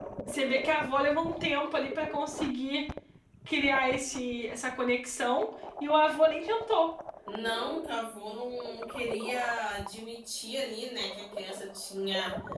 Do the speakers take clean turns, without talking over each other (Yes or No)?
Yes